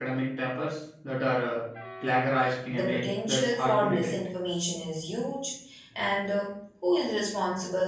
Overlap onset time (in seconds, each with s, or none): 2.7 s